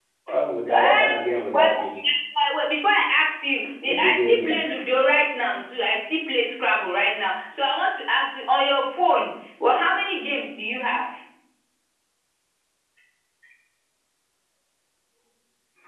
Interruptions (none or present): present